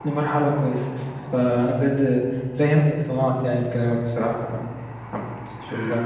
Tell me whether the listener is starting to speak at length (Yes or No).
Yes